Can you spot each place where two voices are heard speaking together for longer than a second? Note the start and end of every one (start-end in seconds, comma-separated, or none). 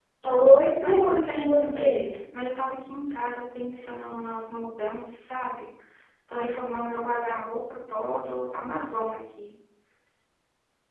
0.8-2.0